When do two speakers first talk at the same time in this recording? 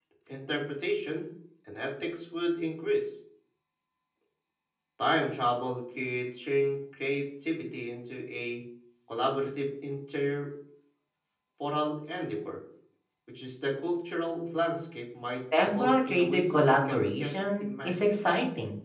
15.5 s

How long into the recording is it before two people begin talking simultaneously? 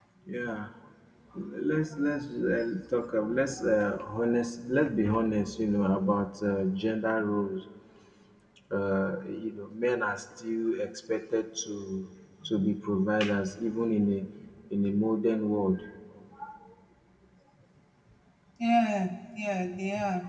none

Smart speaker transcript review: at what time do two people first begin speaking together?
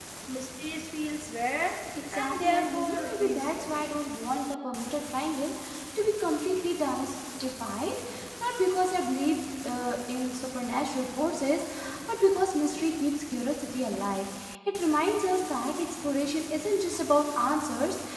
2.0 s

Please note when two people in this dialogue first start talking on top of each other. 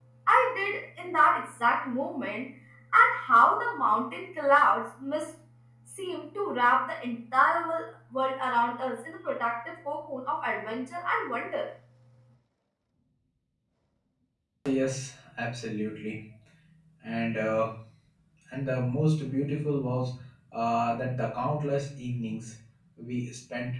none

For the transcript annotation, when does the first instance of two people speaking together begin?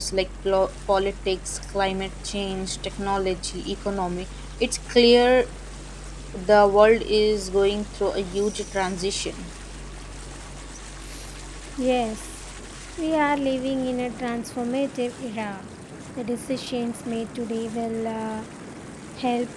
none

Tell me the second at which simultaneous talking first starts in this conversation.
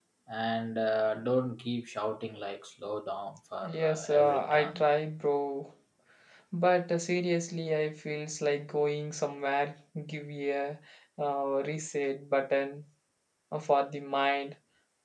3.6 s

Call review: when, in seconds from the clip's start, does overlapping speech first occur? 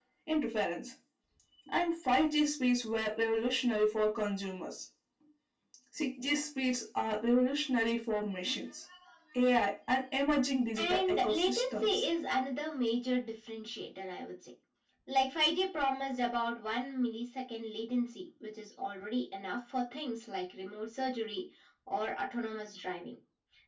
10.8 s

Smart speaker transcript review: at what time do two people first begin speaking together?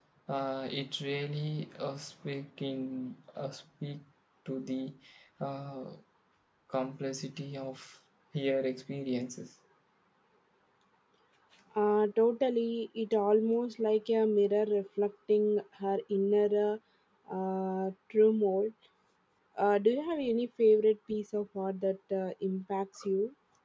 none

